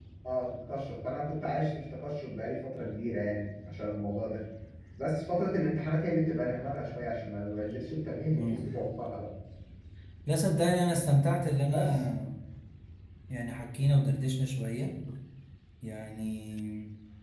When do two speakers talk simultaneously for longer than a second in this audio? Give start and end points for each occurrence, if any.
none

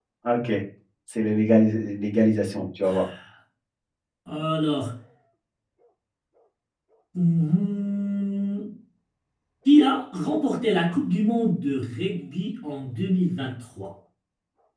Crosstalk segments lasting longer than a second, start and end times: none

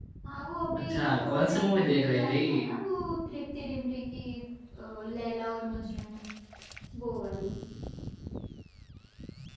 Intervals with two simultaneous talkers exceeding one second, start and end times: 0.8-2.4

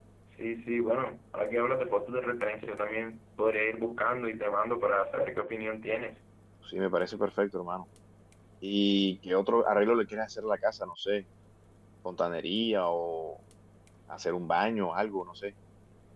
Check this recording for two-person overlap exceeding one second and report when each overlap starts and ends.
none

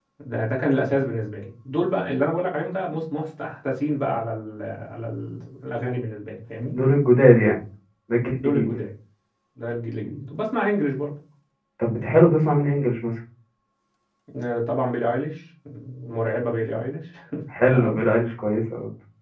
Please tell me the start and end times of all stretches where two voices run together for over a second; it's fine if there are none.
none

